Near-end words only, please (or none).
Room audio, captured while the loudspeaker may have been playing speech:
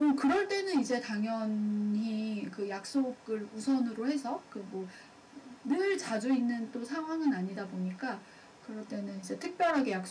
none